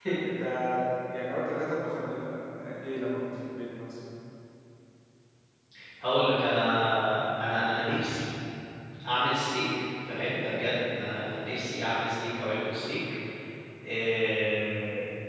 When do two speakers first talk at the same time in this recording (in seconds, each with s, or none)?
none